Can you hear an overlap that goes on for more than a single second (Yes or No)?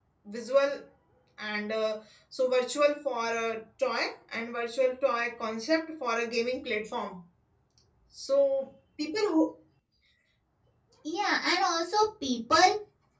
No